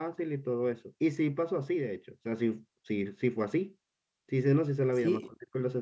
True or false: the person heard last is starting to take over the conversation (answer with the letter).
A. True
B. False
B